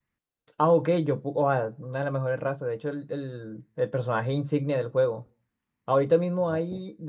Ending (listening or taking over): listening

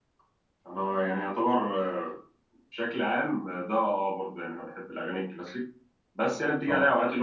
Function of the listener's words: listening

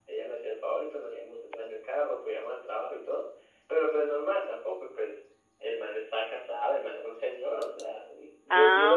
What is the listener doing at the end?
listening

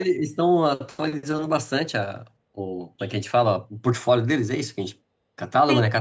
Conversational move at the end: taking over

